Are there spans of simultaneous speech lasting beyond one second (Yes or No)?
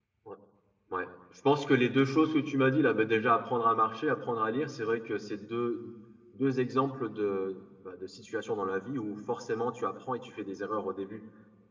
No